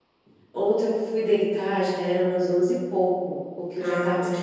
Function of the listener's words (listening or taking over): listening